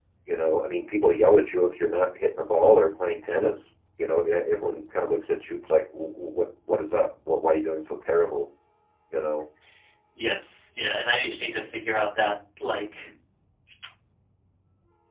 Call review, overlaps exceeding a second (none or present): none